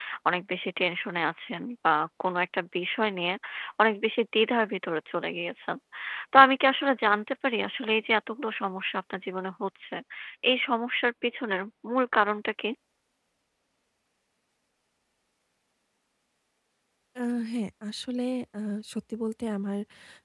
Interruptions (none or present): none